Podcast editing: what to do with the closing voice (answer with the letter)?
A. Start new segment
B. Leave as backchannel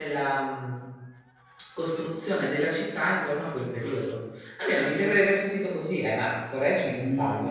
A